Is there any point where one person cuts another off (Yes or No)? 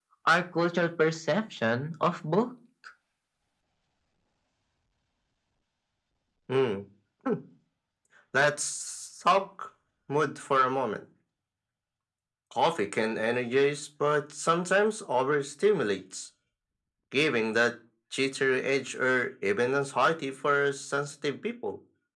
No